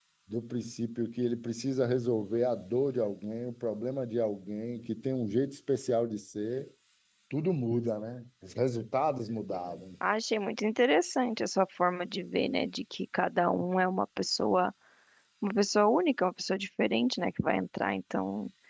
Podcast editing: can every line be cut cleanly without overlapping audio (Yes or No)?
Yes